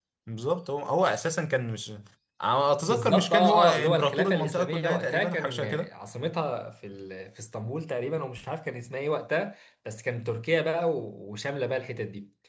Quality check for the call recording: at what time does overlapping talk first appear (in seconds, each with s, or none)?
2.9 s